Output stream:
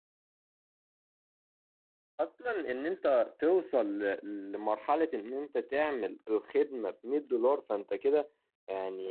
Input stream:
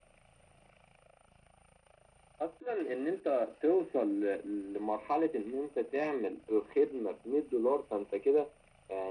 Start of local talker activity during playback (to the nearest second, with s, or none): none